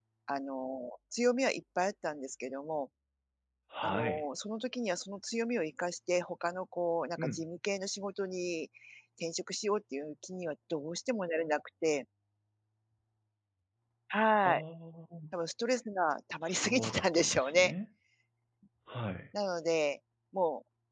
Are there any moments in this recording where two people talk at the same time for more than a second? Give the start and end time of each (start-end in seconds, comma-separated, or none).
16.4-17.7